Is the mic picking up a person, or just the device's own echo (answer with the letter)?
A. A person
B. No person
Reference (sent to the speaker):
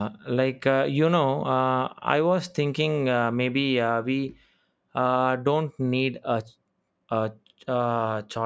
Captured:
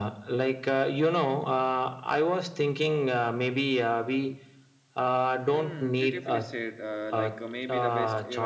A